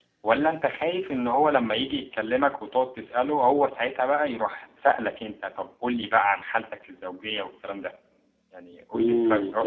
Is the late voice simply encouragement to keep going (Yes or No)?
No